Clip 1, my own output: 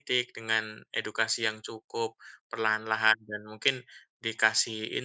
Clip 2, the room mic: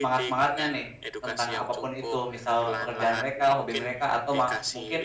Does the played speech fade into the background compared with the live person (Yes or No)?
Yes